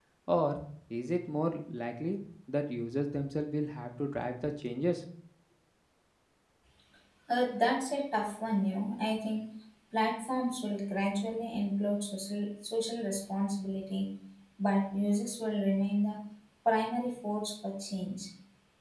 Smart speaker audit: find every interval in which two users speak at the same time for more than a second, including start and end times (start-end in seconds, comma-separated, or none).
none